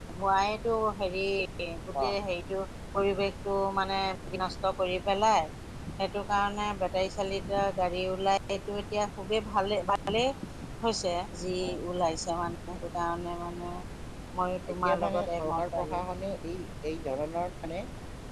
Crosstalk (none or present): present